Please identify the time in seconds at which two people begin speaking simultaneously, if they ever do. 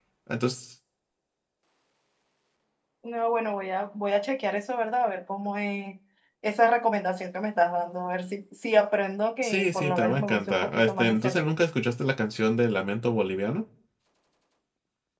9 s

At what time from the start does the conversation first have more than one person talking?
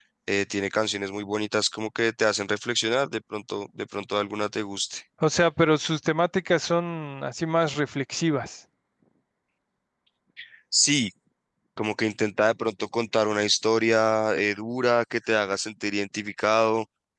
none

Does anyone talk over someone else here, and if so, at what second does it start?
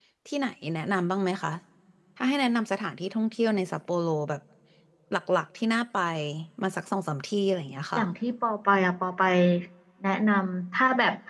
none

